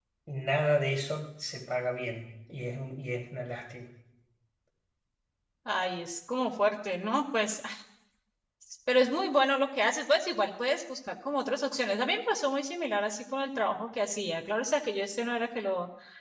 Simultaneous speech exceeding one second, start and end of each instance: none

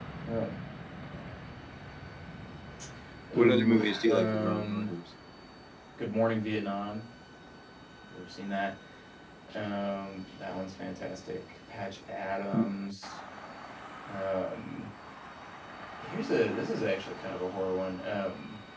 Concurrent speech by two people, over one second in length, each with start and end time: 3.4-4.9

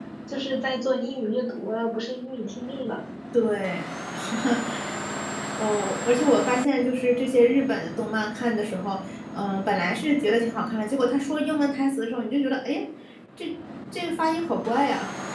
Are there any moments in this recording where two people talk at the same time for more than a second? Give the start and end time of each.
none

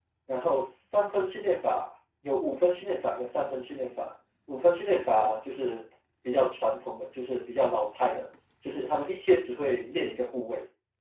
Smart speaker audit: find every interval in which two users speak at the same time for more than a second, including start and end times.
none

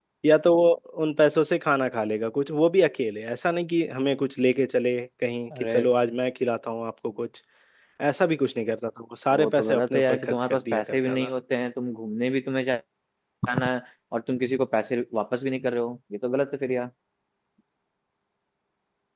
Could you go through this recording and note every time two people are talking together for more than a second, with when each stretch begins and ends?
9.3-11.3

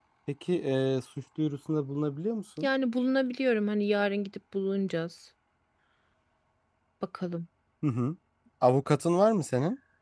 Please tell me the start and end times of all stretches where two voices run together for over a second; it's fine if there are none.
none

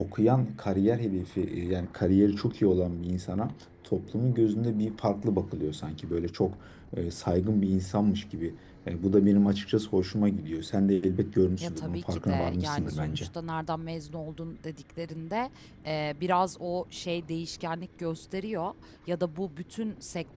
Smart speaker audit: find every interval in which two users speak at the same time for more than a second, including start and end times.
11.6-13.3

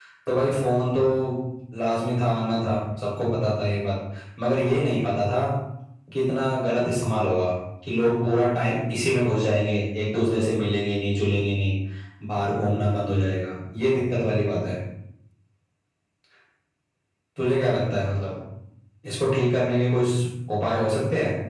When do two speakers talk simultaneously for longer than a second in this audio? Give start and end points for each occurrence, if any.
none

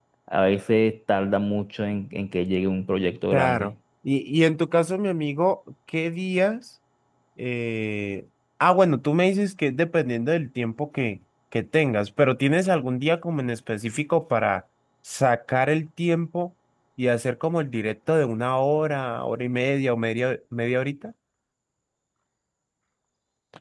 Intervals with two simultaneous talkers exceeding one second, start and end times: none

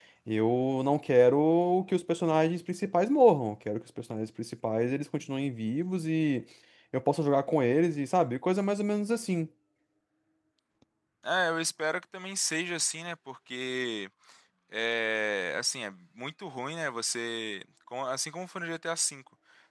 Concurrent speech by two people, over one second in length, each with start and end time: none

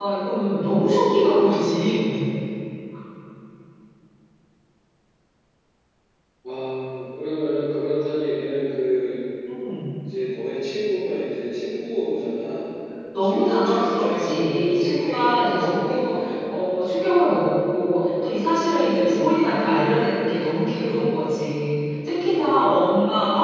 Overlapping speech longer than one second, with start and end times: 13.2-16.3

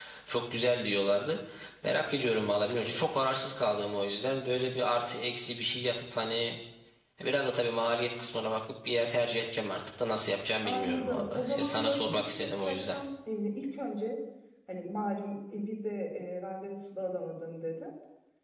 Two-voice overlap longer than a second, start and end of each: 10.6-13.0

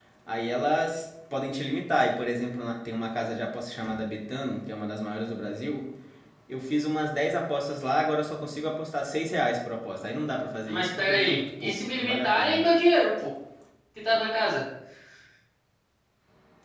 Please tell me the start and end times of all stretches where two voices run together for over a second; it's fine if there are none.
10.7-12.6

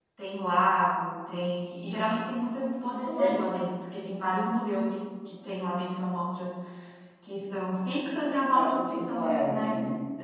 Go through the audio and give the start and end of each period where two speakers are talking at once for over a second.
8.5-9.7

